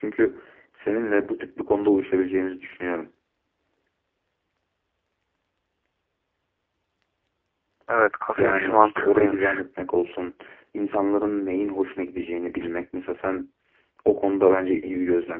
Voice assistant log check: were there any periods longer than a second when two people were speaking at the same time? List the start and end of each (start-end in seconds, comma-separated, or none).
8.4-9.6